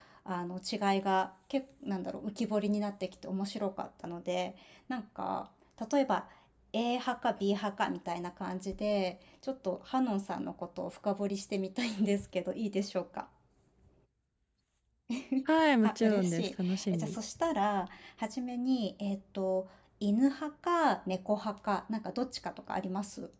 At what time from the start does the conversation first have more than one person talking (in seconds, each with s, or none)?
15.8 s